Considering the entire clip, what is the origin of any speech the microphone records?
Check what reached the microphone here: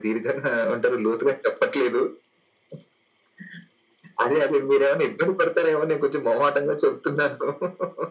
echo only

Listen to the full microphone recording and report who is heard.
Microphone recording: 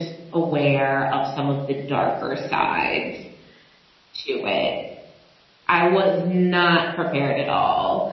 echo only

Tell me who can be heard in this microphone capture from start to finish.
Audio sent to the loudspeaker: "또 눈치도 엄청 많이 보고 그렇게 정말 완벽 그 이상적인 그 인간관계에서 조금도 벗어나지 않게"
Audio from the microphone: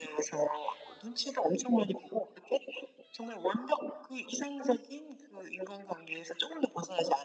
echo only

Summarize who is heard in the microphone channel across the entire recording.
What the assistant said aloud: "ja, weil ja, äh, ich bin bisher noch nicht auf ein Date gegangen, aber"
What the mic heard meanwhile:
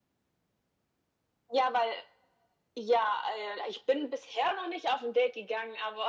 echo only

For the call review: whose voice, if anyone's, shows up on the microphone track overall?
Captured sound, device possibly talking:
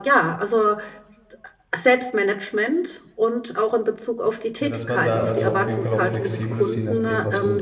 both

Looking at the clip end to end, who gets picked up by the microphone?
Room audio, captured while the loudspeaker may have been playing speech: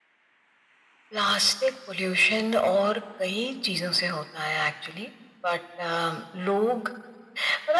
echo only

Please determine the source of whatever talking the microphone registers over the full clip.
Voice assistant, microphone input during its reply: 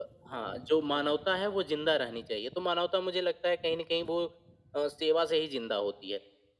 echo only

